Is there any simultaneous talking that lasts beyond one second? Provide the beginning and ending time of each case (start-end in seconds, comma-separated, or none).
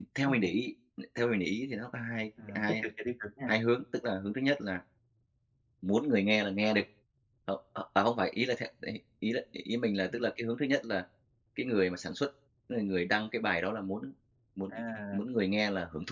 none